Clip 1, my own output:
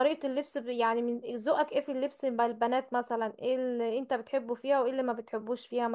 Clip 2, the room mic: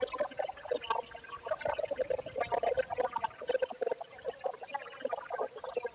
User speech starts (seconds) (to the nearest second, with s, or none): none